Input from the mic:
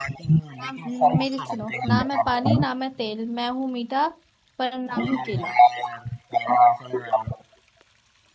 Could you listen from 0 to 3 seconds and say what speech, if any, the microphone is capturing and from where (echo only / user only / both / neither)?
both